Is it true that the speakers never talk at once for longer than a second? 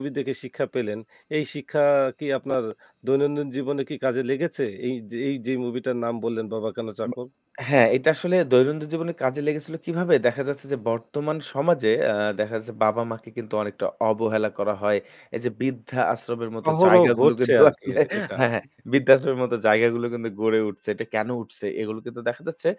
No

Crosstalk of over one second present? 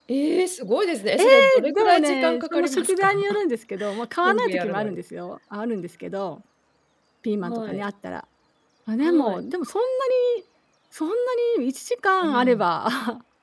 Yes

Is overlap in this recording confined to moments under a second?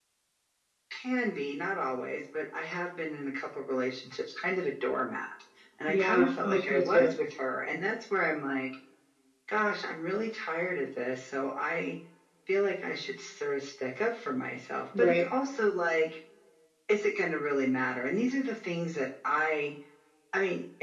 No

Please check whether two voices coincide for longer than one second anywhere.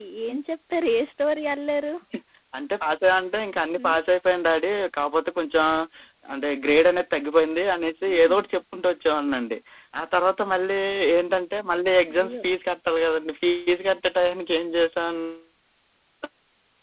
No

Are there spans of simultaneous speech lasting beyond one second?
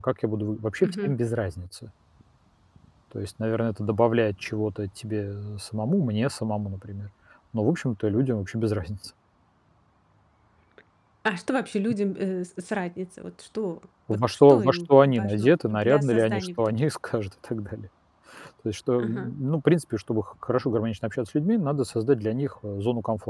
Yes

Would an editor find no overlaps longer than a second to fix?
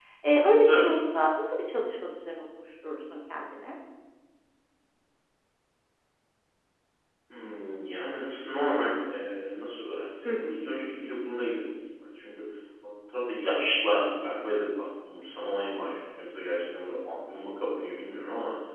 Yes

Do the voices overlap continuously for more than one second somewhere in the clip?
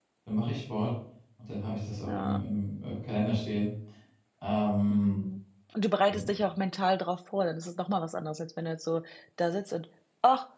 No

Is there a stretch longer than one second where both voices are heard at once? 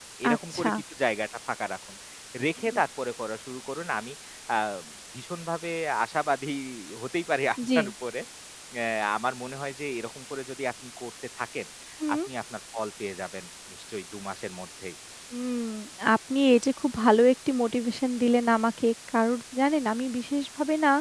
No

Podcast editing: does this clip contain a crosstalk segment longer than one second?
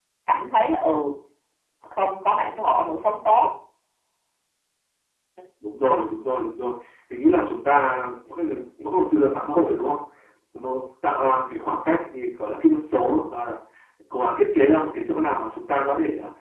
No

